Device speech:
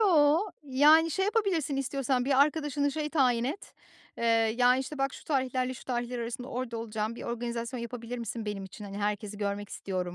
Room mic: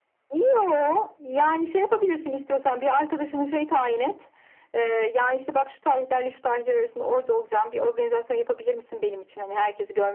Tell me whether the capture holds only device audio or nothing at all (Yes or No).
Yes